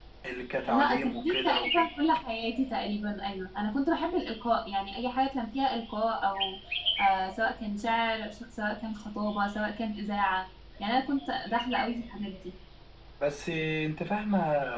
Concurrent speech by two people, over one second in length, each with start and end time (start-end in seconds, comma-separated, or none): 0.7-1.9